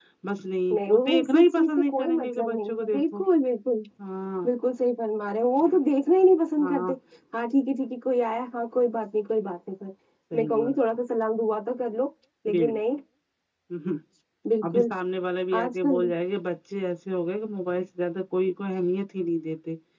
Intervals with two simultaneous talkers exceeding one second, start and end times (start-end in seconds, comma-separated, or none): 0.7-3.2